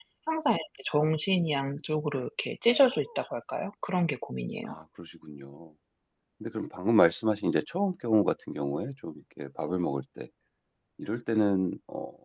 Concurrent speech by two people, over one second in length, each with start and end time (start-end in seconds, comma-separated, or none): none